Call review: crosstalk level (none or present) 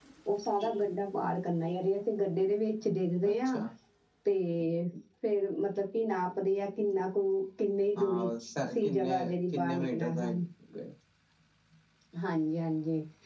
present